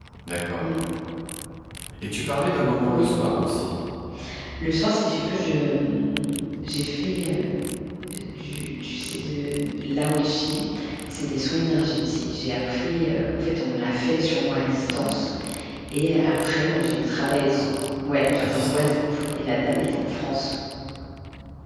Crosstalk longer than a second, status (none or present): none